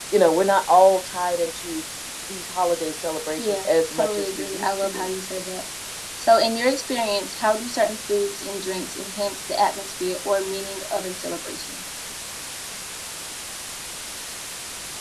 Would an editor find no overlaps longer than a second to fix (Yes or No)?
No